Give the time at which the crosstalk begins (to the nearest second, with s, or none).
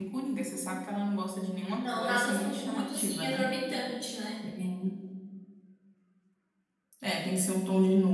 2 s